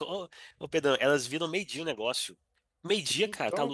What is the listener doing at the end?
listening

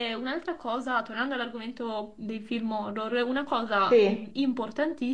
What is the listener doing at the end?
listening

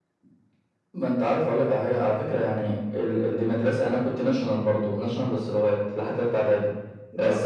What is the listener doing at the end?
listening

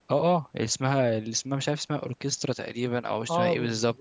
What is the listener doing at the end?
taking over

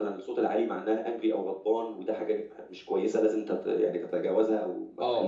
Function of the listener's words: taking over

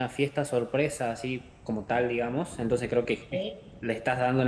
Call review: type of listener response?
listening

